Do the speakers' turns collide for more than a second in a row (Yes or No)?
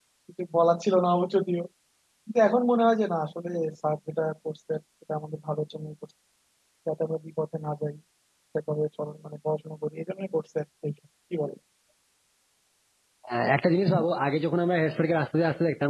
No